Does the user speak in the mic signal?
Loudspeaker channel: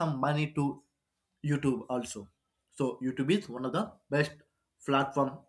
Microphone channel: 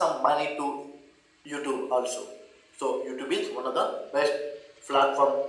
No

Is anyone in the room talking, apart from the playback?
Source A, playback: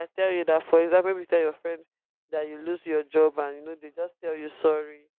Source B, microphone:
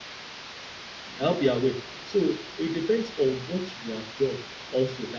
Yes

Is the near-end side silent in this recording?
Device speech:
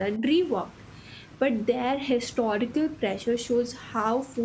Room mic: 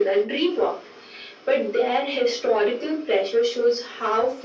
Yes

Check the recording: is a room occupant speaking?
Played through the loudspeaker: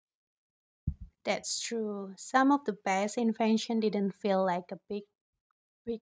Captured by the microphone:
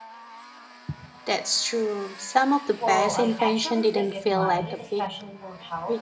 Yes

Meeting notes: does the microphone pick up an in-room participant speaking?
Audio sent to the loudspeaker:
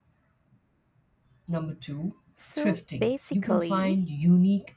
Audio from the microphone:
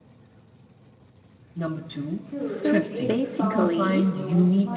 Yes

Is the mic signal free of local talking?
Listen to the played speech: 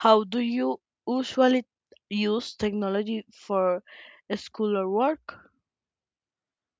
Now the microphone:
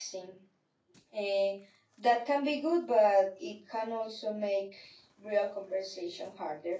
No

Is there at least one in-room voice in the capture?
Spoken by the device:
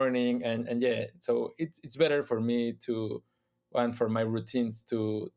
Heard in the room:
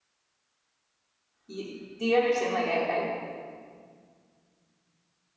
Yes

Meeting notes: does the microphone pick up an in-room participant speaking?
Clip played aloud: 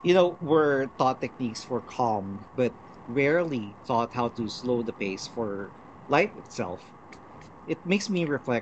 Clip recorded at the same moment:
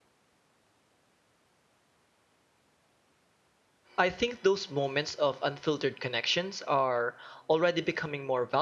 Yes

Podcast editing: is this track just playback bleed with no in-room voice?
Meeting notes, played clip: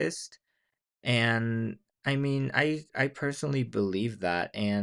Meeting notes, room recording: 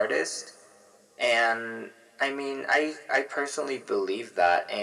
Yes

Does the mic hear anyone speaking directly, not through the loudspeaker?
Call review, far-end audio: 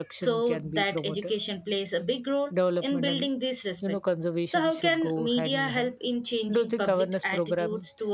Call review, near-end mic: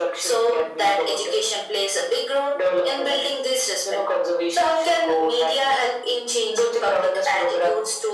No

